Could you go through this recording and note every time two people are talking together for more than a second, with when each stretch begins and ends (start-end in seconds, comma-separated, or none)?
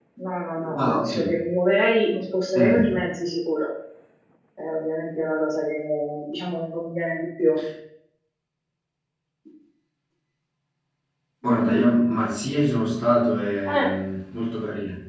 none